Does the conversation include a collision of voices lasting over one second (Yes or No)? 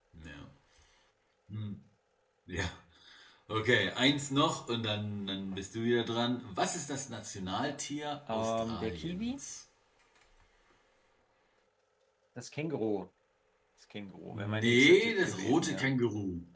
Yes